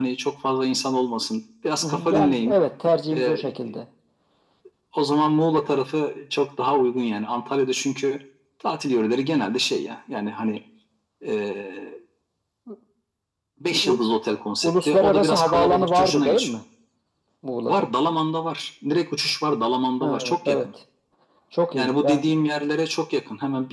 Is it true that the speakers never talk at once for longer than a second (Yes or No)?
No